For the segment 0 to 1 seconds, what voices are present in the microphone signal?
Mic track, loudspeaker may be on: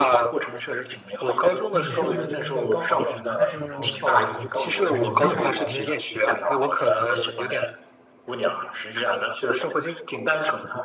echo only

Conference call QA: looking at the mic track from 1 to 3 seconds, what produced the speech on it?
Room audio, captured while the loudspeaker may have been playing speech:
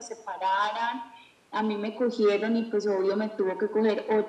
echo only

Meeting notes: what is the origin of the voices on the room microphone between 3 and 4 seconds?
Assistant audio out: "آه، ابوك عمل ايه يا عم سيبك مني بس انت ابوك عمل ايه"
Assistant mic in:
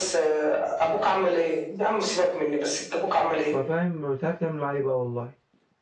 both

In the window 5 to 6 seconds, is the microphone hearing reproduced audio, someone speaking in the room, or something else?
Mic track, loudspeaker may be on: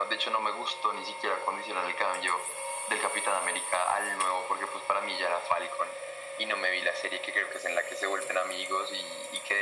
echo only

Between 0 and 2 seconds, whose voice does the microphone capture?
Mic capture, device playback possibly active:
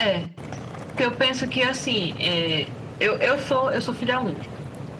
echo only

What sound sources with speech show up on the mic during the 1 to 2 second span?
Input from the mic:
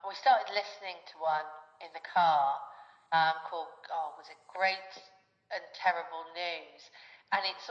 echo only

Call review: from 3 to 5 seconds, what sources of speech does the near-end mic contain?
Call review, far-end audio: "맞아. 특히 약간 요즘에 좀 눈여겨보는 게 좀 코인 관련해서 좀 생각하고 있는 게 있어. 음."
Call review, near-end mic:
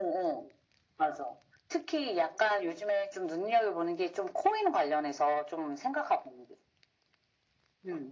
echo only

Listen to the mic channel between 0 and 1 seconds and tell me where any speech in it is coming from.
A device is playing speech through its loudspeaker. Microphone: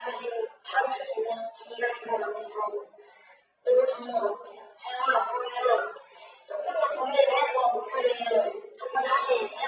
echo only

